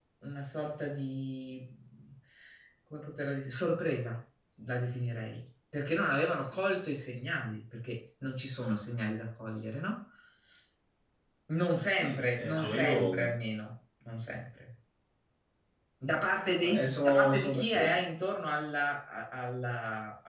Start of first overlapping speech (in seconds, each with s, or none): 12.0 s